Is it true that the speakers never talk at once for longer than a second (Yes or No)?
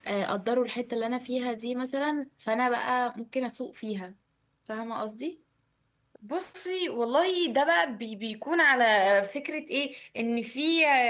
Yes